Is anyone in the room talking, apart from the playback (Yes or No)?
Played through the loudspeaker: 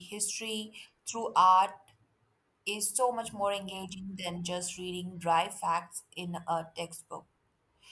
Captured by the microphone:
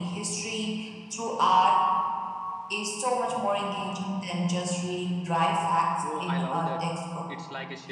Yes